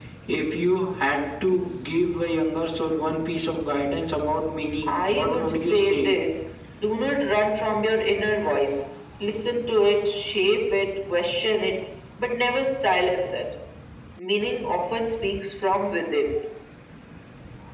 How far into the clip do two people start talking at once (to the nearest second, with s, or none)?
5 s